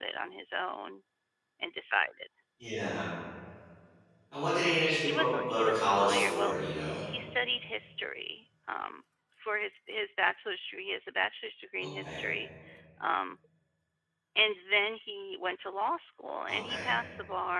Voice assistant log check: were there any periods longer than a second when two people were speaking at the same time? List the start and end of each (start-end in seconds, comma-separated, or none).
5.0-6.6